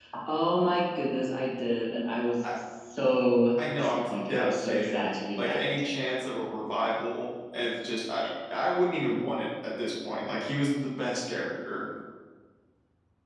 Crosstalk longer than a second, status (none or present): present